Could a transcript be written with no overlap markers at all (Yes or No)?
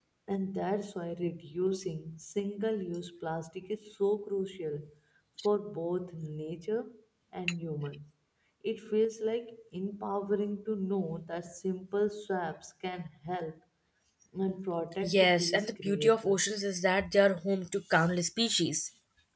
No